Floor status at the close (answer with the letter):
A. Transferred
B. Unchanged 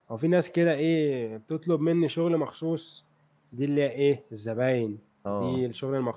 B